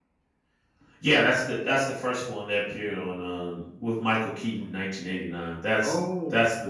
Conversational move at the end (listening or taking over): listening